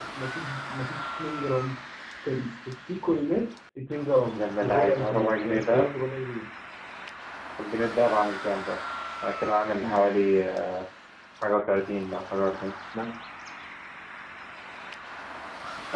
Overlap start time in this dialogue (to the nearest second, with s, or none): 4 s